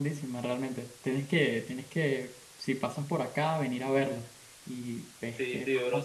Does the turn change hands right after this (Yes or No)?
Yes